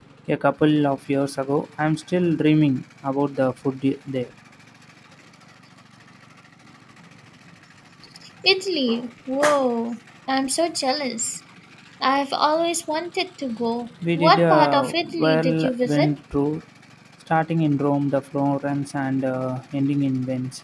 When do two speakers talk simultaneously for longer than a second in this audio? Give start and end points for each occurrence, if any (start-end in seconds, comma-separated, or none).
14.2-16.1